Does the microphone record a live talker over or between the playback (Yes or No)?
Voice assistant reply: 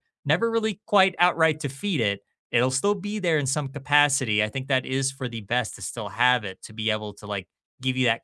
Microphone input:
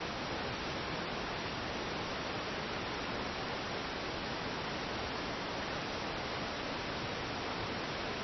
No